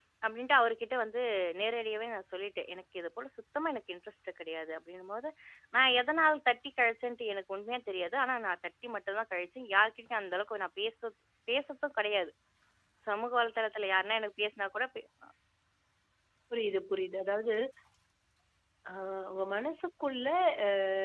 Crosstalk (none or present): none